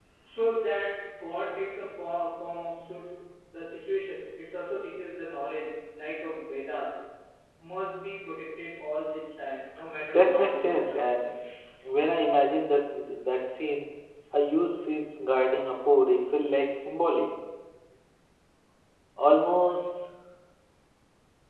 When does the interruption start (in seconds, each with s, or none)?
10.1 s